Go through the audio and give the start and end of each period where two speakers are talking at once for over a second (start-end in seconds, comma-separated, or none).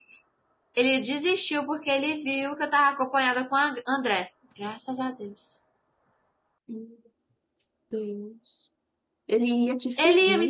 none